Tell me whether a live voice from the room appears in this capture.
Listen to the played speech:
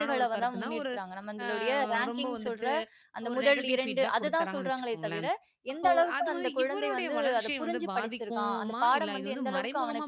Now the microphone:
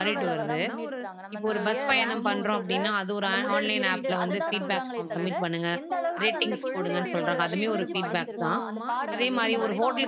Yes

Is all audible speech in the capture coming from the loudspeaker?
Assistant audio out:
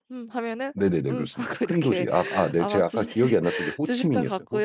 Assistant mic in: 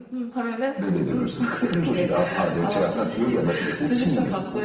Yes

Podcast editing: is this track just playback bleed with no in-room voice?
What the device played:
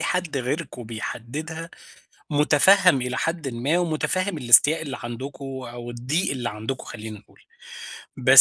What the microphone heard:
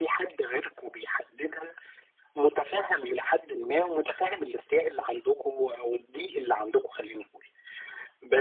Yes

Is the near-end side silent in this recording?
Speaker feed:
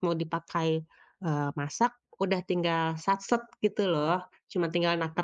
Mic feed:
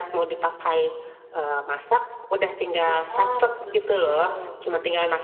No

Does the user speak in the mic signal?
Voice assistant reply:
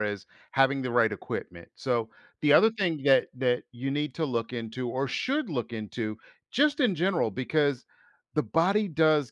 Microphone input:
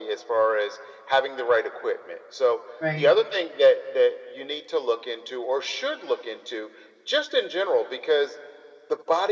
Yes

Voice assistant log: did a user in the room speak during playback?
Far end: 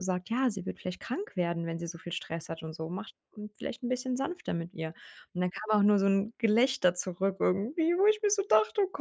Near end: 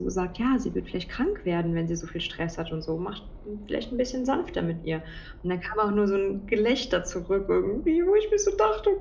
No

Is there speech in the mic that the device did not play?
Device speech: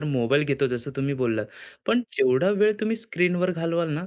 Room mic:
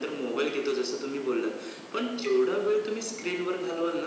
No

